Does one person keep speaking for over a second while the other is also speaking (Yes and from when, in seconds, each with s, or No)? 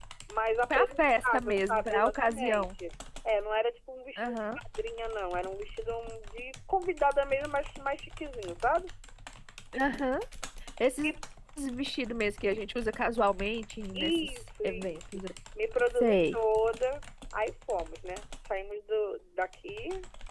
Yes, from 0.7 s